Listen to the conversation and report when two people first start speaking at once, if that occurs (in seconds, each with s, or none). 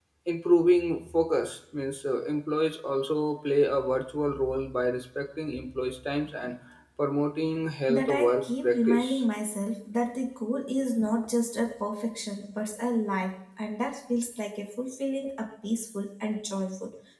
7.9 s